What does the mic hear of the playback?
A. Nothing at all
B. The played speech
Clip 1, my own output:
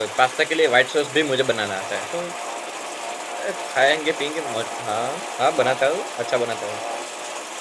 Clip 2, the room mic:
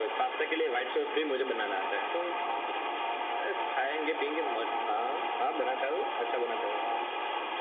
B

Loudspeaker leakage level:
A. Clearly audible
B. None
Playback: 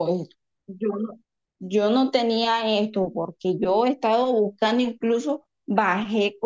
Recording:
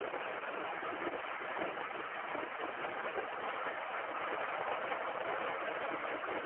B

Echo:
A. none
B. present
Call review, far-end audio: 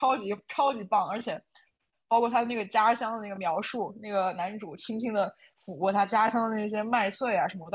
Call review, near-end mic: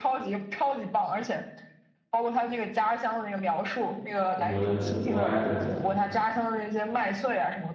B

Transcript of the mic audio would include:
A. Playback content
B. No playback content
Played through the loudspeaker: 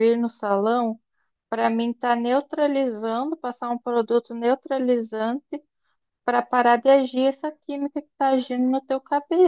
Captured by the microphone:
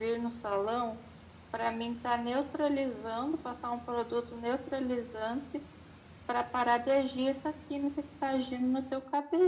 A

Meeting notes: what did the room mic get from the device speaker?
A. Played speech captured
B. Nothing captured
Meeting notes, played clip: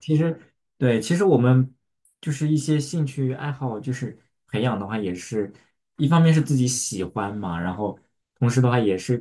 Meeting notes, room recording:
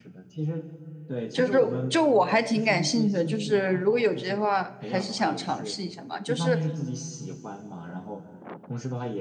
A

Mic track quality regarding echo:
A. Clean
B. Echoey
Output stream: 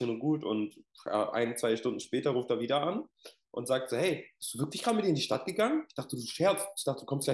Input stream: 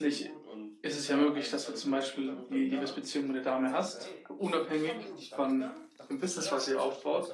B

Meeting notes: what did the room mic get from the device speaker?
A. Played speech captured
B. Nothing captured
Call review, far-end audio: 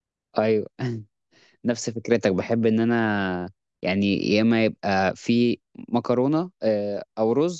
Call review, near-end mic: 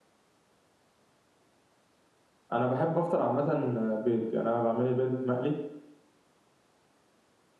B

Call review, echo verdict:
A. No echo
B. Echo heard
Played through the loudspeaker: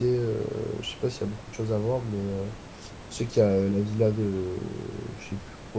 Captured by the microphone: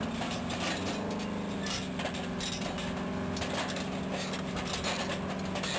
A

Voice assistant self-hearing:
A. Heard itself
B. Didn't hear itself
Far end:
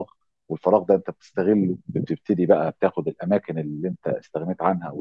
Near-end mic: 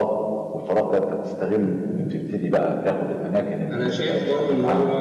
A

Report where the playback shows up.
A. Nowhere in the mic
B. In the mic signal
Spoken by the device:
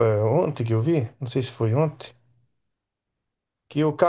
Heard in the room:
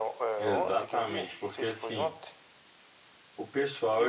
B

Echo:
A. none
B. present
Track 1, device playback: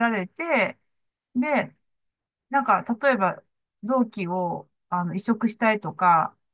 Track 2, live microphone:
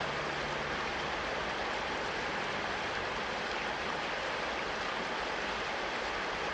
A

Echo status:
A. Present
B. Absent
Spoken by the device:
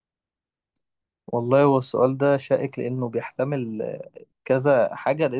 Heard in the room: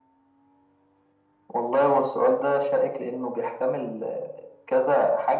A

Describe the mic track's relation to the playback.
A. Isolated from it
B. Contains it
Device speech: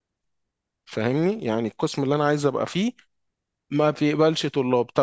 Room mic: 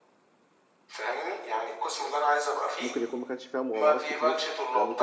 B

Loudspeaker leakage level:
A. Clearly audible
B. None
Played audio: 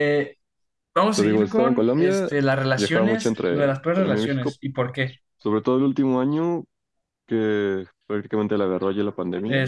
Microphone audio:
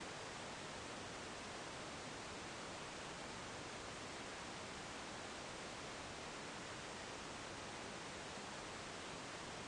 B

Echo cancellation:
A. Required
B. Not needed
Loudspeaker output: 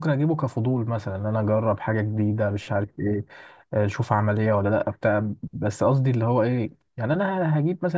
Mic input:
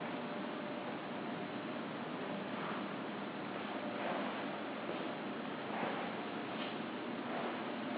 B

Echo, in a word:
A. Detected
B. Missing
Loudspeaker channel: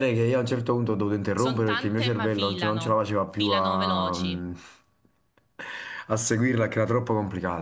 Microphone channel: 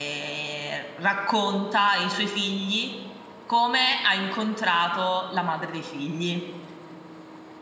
B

